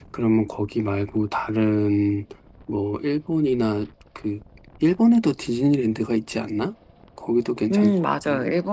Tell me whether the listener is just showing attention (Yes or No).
No